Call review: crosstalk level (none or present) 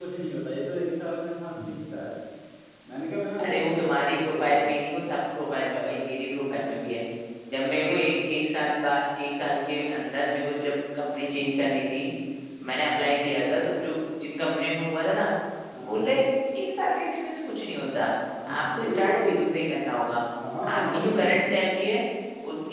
present